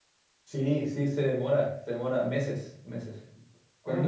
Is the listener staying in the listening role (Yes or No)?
No